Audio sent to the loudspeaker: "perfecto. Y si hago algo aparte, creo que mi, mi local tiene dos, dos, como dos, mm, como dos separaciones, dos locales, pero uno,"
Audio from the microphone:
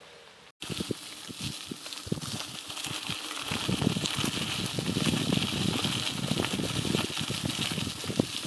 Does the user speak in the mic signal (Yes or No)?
No